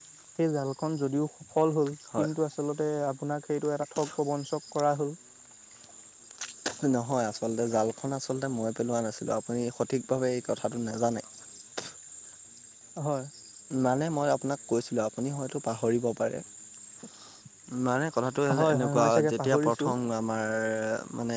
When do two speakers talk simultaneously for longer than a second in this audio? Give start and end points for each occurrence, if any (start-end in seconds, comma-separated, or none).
18.6-19.9